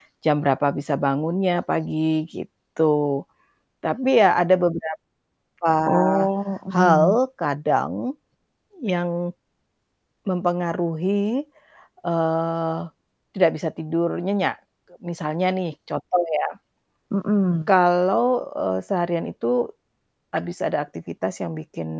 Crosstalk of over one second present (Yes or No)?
No